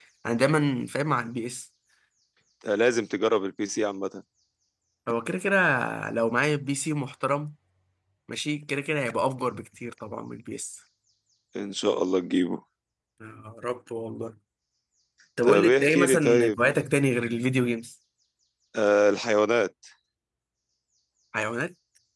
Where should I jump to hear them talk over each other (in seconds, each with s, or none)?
15.4 s